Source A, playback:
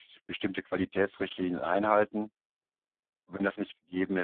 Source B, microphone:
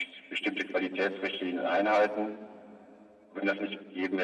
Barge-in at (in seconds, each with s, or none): none